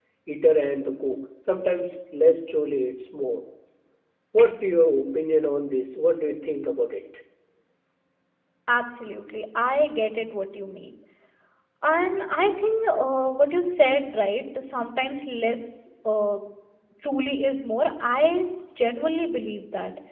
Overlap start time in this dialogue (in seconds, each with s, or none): none